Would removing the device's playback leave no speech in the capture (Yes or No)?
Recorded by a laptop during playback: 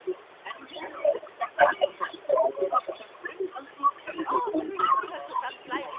No